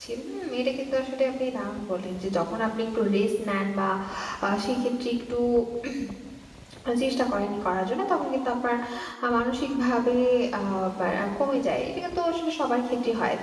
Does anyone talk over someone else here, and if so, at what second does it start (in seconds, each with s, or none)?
none